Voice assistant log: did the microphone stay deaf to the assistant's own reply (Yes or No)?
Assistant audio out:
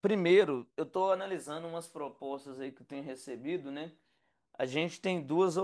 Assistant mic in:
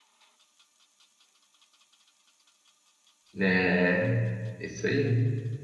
Yes